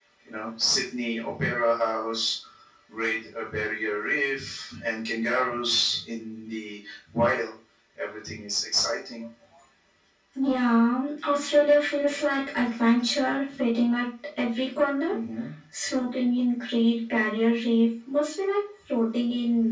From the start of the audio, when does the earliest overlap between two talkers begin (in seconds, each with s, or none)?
none